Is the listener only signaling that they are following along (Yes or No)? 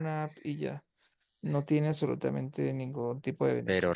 No